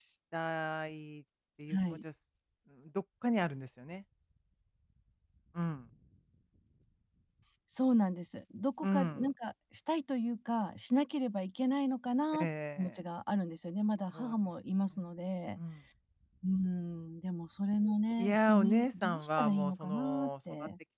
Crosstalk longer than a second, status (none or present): present